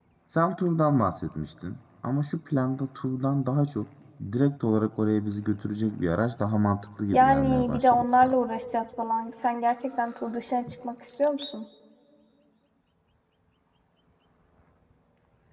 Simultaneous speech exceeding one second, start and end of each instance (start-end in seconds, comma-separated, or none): 7.1-8.3